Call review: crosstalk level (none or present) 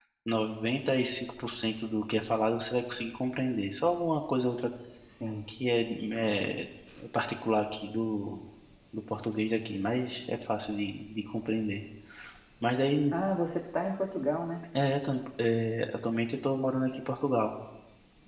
none